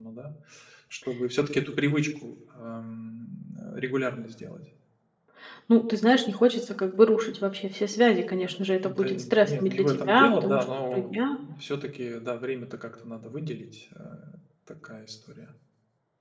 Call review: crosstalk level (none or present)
present